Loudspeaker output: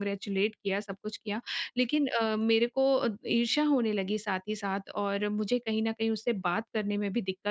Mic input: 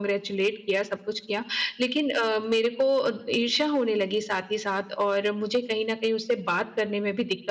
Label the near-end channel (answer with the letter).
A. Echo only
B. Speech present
A